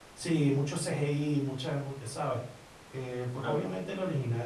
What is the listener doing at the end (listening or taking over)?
listening